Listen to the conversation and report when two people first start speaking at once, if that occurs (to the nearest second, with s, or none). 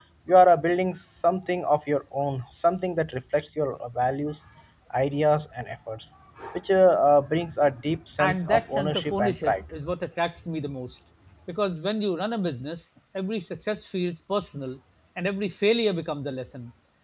8 s